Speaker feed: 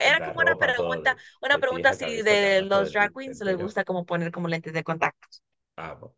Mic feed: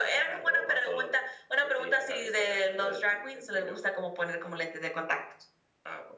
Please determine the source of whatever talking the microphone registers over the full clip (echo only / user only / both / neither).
echo only